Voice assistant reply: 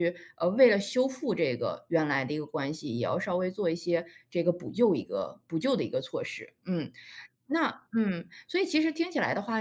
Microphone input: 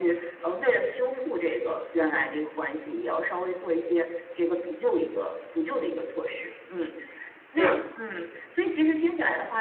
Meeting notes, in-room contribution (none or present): present